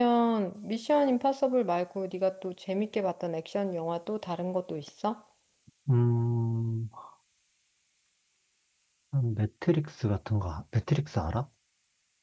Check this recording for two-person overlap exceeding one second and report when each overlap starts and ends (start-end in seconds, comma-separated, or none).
none